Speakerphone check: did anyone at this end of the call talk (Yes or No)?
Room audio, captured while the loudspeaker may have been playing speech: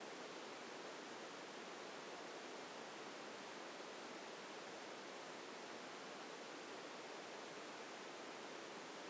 No